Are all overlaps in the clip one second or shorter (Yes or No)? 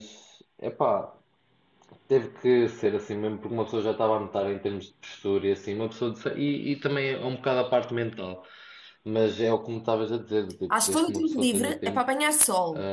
No